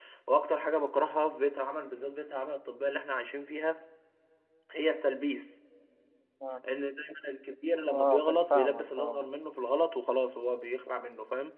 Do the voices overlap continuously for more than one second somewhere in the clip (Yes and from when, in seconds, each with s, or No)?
Yes, from 7.9 s